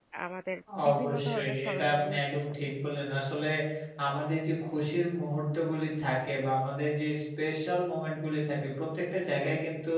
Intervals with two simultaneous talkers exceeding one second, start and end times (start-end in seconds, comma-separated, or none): 0.9-2.5